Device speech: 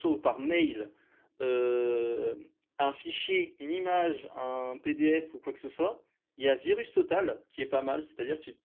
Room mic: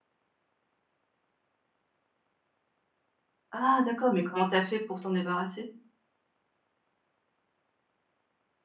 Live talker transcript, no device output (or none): ah, d'accord, mais comment t'as fait pour t'en débarrasser?